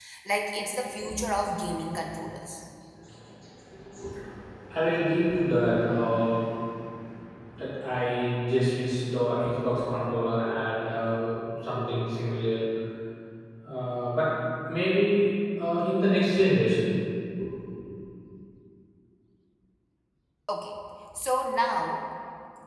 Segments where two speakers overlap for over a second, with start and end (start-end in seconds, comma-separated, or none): none